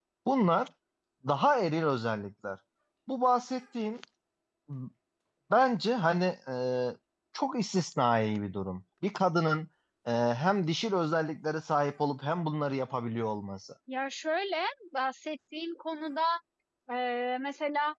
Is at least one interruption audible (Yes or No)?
No